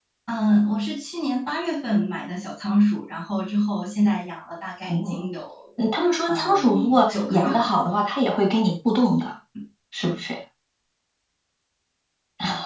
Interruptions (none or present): present